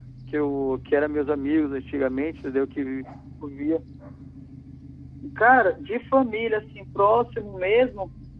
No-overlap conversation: Yes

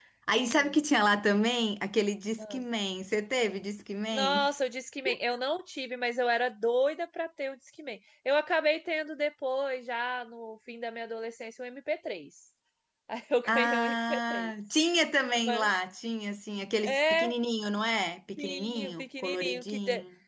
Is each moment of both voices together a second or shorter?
No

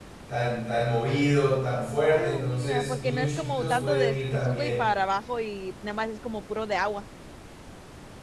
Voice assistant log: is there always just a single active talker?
No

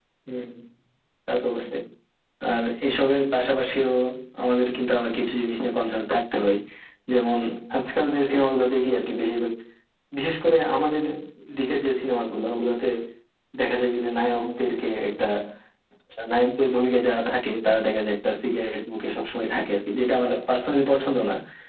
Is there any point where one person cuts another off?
No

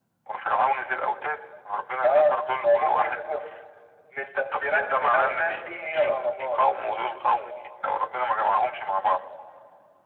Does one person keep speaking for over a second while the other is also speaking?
Yes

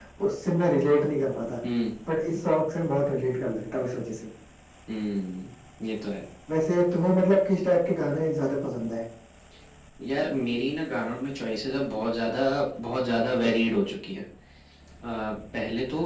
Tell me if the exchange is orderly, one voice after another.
Yes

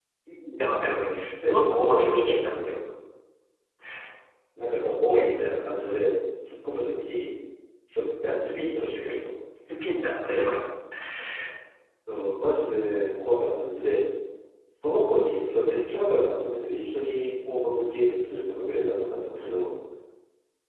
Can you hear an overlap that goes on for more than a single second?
Yes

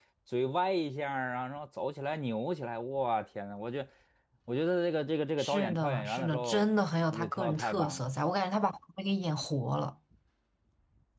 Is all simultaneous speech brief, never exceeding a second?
No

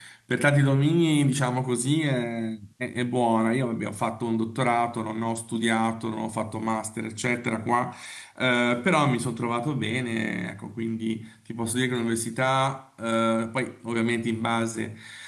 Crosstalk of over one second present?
No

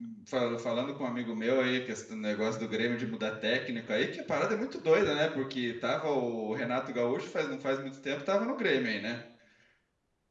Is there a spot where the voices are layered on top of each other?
No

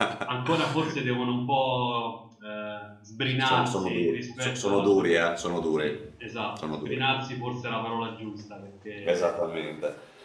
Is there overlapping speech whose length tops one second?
Yes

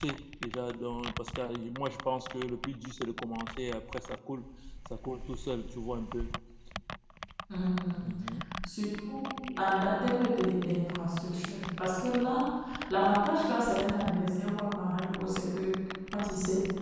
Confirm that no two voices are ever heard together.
Yes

